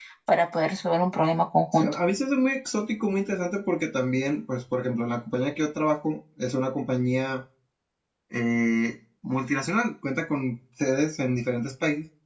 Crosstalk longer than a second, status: none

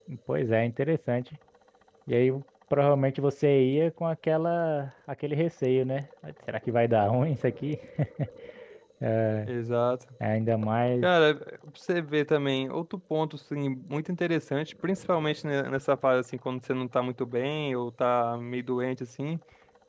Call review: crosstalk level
none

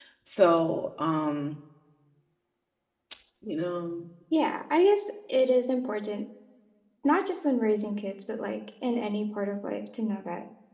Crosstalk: none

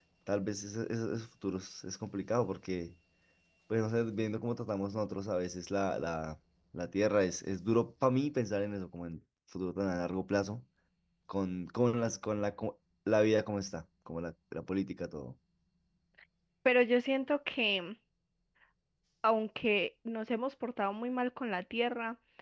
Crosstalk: none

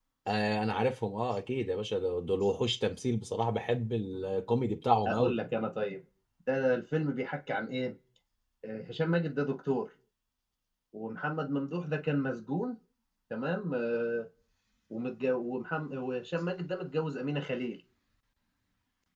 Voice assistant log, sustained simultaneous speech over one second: none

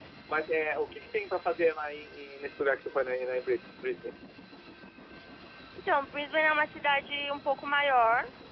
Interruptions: none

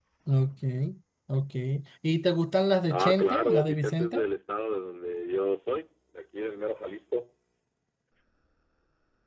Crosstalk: present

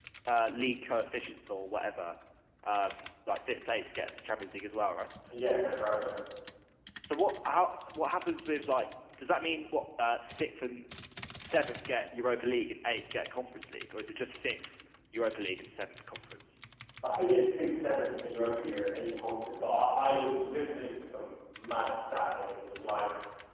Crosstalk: none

